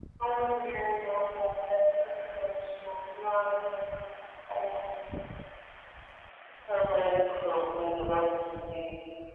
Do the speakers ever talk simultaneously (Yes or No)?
No